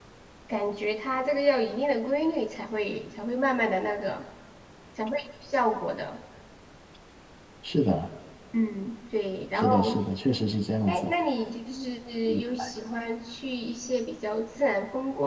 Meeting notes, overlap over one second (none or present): none